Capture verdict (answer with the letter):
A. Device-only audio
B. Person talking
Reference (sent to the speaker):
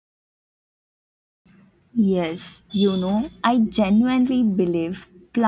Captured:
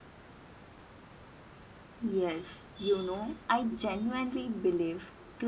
A